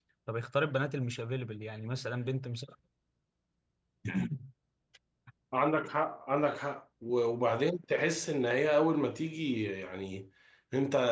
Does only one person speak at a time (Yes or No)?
Yes